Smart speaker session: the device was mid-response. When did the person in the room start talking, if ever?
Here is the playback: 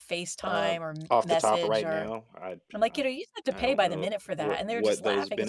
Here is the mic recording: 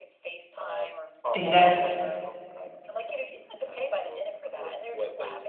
1.3 s

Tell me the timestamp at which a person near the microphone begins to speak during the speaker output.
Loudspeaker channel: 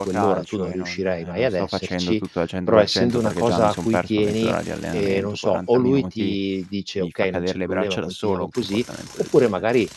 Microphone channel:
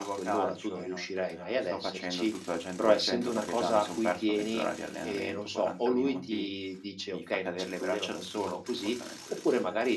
none

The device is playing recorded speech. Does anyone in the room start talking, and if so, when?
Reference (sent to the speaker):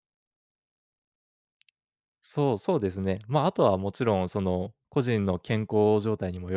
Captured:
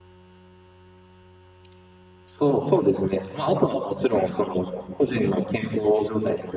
none

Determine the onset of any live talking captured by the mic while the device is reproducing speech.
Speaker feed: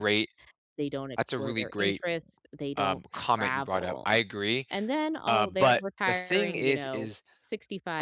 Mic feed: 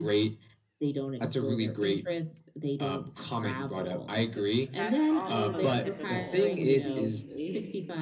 4.2 s

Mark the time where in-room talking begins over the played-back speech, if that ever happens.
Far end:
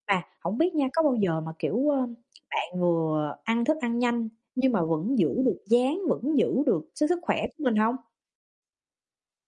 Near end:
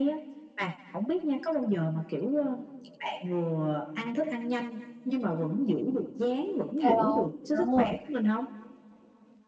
6.7 s

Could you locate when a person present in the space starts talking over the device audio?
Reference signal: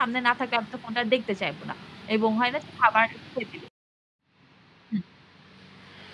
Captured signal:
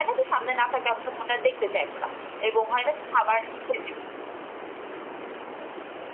none

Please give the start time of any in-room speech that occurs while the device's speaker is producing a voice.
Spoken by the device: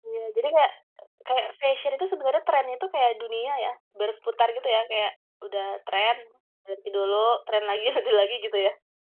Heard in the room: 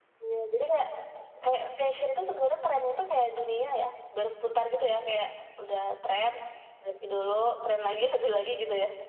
none

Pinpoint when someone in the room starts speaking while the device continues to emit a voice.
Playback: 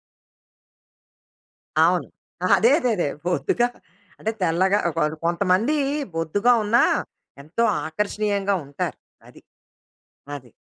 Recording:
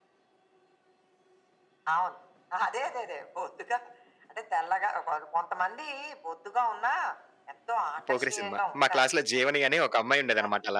8.1 s

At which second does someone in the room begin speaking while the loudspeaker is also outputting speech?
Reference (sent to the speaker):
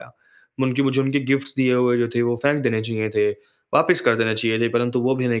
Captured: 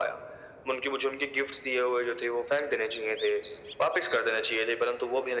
none

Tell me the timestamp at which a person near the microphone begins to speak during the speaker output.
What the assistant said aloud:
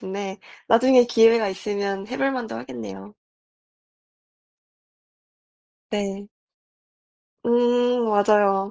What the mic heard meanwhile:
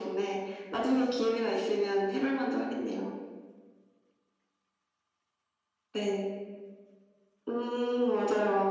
none

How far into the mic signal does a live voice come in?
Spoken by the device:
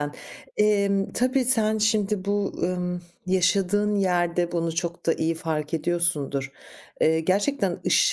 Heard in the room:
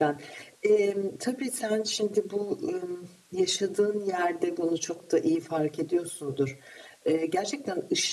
none

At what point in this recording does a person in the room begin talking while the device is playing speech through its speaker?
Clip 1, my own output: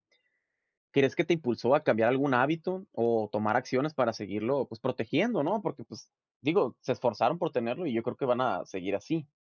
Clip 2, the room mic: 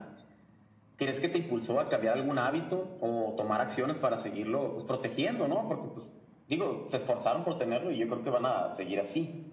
none

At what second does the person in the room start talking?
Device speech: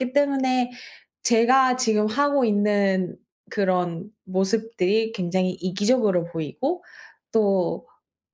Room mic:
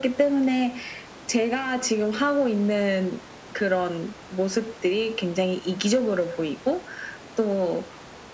none

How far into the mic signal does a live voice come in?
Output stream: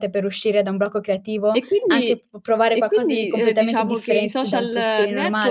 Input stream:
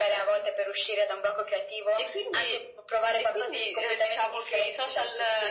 none

